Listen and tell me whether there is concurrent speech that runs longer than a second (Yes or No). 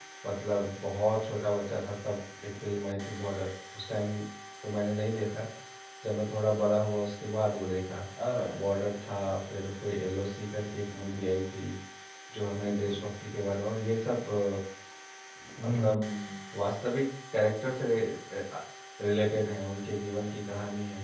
No